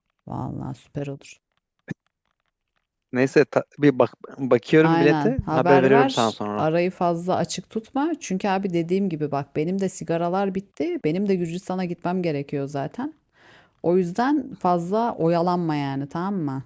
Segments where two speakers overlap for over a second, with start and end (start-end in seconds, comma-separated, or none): 4.8-6.6